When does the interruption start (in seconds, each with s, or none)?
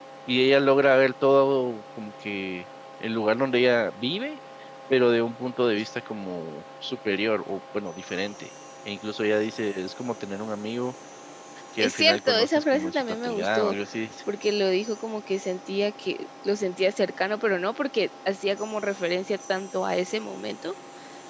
11.8 s